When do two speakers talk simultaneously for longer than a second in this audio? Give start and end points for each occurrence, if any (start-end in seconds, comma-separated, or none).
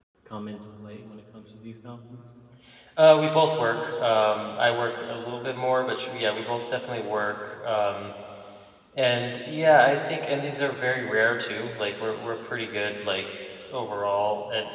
none